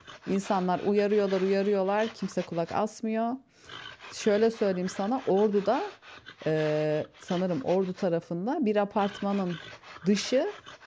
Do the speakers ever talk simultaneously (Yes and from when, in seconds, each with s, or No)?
No